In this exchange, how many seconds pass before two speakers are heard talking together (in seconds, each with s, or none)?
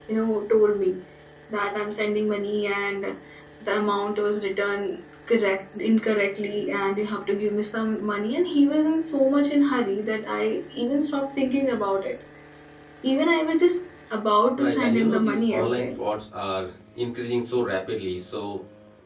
14.6 s